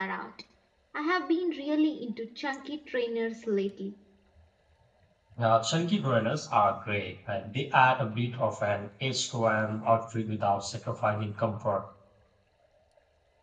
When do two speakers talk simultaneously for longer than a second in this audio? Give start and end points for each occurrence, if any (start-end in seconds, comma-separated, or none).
none